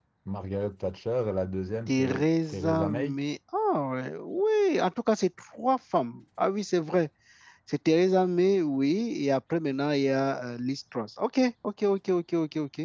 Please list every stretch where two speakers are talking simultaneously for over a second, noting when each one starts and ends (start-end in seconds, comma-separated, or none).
1.9-3.2